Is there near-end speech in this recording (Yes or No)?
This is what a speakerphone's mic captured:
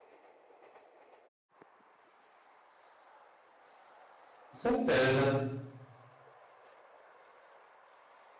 Yes